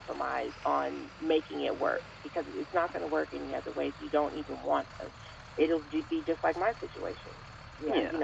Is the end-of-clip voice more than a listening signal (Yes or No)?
Yes